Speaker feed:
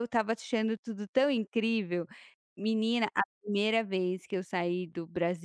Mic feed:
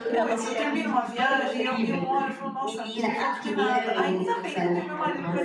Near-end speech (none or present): present